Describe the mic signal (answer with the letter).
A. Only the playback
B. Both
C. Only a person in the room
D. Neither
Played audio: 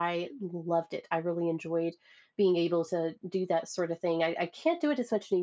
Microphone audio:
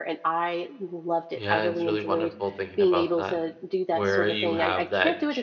B